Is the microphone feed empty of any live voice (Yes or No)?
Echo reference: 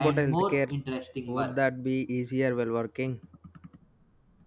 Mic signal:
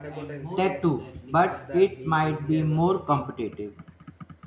No